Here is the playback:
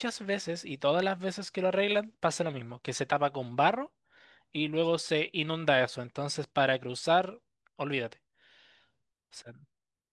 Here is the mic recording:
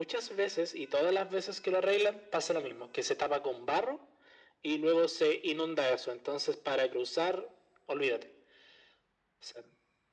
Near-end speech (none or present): none